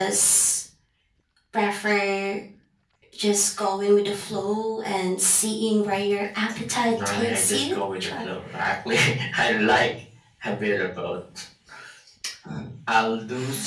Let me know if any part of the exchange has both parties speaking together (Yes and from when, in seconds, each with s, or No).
Yes, from 6.8 s